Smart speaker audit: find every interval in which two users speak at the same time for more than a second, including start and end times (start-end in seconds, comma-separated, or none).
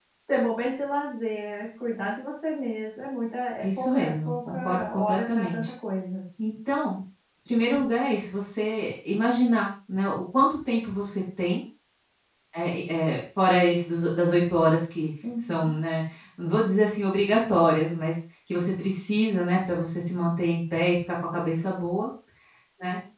3.6-5.7